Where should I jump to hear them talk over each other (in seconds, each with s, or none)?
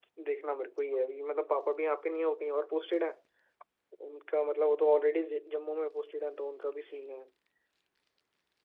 none